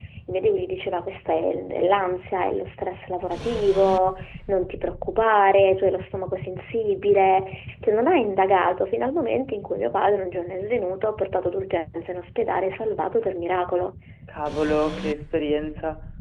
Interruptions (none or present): none